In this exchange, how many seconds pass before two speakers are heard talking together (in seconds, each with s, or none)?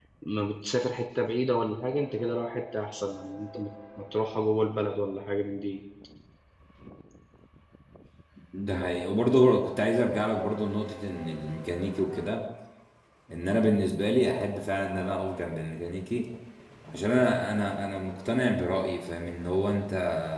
none